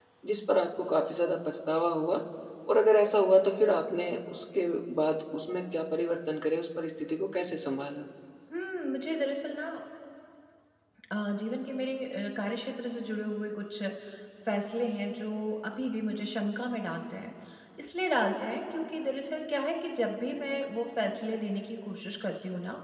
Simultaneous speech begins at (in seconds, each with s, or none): none